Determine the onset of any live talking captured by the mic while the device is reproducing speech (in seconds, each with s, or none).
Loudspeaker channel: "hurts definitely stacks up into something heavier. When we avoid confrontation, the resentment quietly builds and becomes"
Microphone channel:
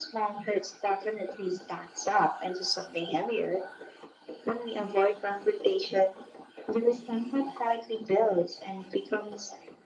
none